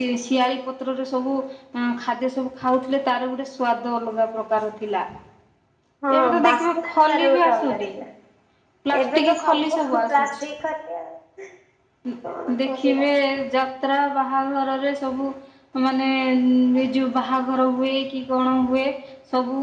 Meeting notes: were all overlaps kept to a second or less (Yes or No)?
No